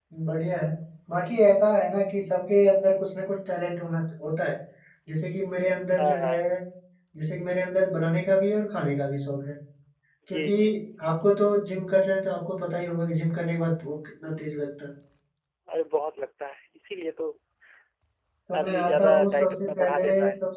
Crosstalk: present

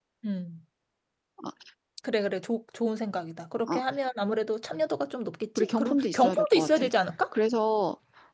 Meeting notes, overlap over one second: present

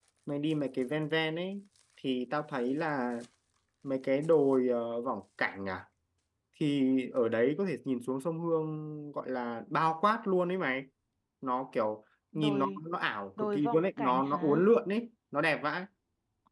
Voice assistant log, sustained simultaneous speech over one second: present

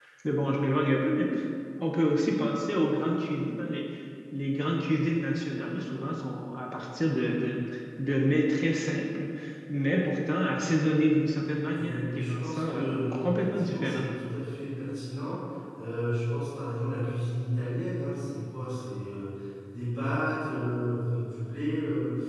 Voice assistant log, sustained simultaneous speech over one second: present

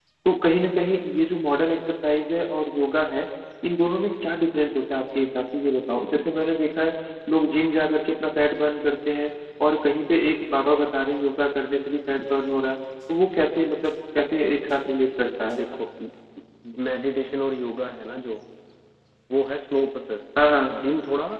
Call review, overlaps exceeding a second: none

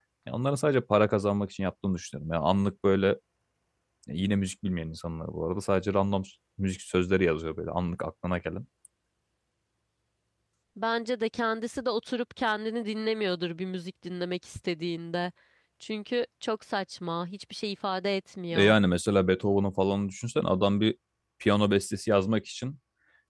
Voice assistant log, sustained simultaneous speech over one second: none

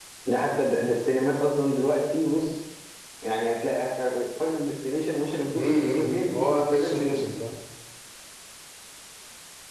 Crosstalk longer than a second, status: present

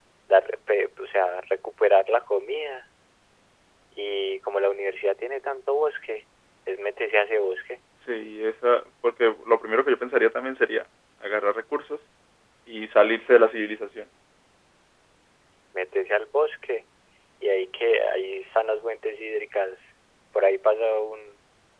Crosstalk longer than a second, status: none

